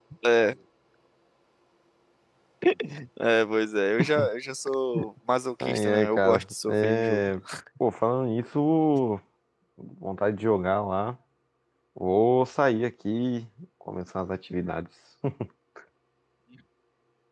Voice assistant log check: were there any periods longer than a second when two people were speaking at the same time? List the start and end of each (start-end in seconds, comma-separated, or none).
5.6-7.3